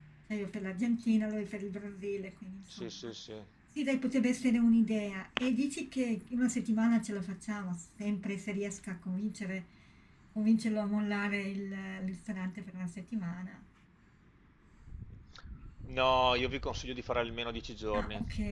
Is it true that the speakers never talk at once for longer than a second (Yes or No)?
Yes